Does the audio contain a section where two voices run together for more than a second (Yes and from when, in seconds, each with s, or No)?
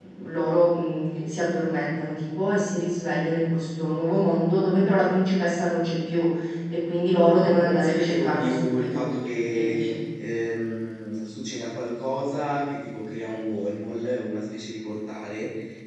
Yes, from 7.2 s